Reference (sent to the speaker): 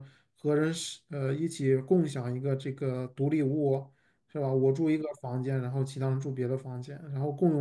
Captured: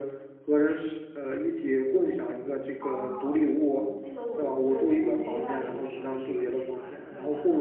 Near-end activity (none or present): present